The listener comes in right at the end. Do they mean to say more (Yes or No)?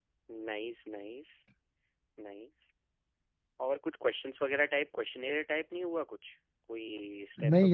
Yes